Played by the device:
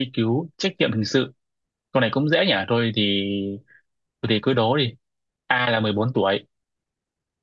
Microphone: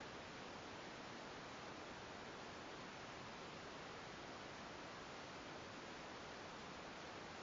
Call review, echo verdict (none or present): none